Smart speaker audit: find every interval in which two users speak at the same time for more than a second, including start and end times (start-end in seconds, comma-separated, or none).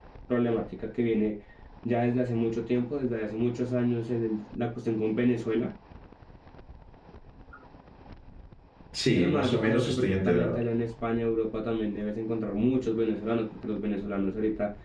9.2-10.6